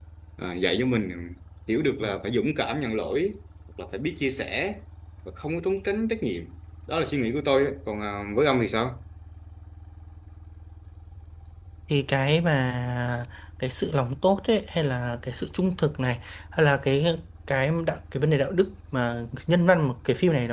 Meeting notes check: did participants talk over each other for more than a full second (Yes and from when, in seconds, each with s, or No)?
No